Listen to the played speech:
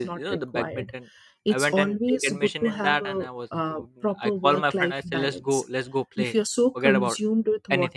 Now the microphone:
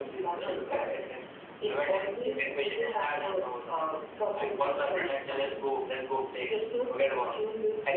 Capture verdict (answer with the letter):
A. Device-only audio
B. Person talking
A